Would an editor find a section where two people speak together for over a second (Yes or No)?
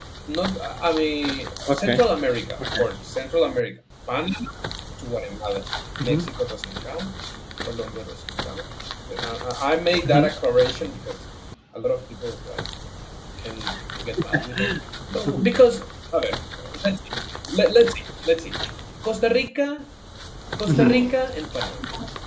No